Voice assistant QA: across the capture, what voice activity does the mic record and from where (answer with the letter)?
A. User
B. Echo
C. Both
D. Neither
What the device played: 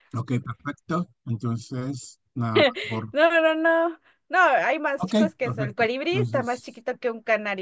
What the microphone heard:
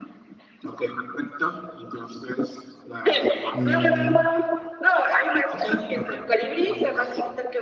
C